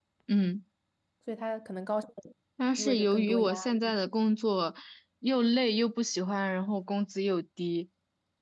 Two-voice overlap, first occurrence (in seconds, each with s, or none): 2.8 s